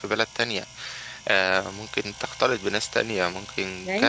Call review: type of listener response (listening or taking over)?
taking over